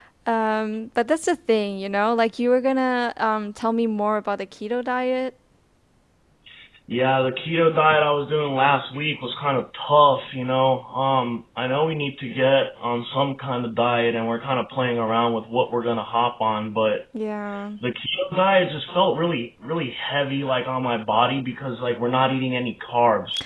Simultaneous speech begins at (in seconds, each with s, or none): none